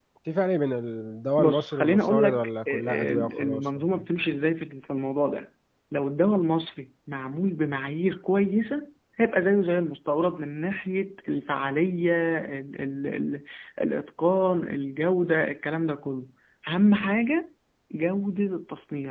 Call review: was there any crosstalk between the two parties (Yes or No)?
Yes